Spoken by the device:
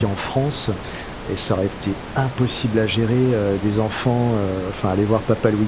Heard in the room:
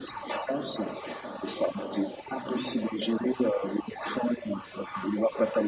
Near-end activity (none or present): none